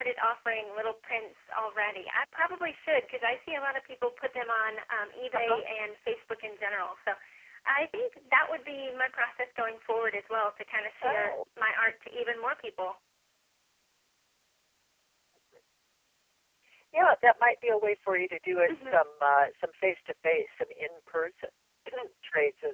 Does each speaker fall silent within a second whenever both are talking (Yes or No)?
Yes